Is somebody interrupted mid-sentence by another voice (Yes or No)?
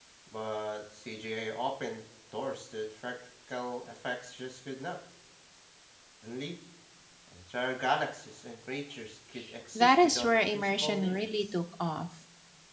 Yes